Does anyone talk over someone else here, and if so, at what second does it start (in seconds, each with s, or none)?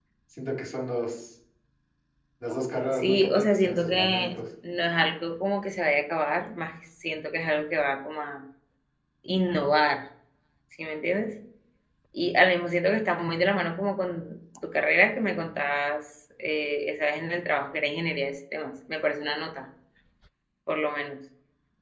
2.9 s